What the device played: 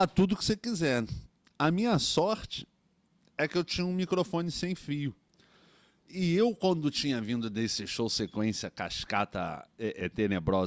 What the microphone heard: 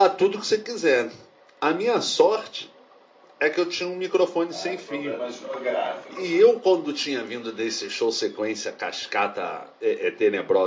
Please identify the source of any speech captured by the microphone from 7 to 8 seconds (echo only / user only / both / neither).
echo only